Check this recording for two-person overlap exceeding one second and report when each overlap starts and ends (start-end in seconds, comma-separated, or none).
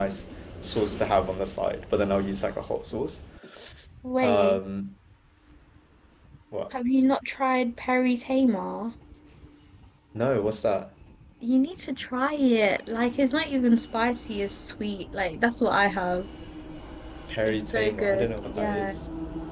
17.5-18.9